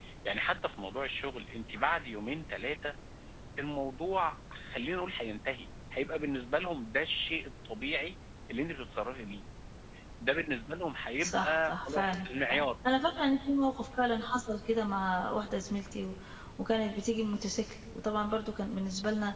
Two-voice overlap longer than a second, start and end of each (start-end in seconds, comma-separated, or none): 11.2-12.7